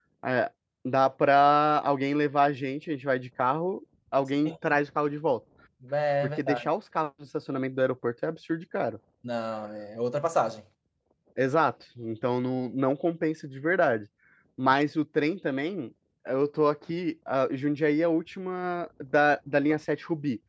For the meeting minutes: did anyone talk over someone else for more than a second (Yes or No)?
No